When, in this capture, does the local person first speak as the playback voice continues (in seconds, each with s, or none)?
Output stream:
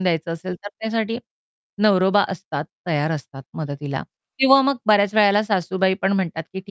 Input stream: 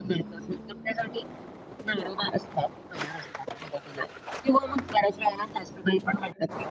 none